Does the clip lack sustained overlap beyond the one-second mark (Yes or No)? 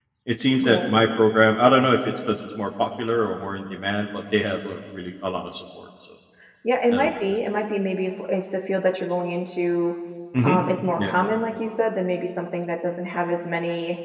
Yes